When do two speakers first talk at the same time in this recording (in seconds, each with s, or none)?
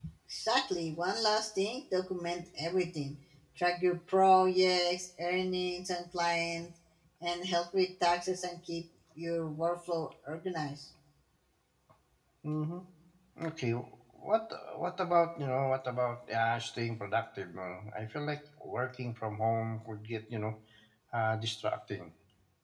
none